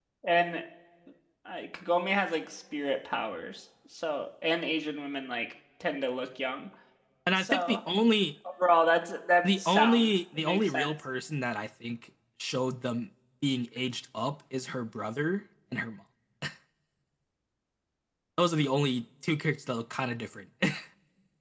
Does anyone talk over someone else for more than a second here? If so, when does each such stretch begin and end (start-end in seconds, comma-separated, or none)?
9.4-10.9